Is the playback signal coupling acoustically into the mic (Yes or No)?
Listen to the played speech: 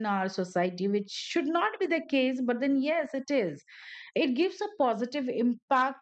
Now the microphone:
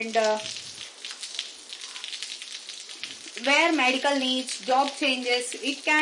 No